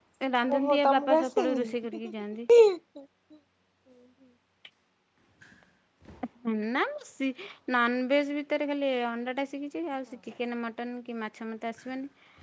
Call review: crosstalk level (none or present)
present